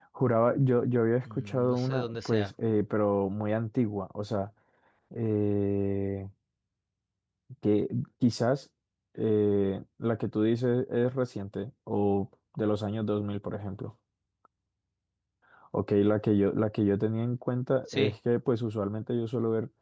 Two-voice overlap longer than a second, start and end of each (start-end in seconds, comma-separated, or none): 1.2-2.5